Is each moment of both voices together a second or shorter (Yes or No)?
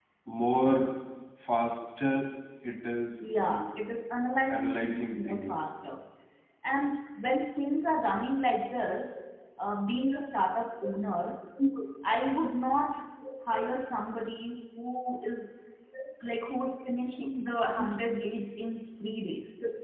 No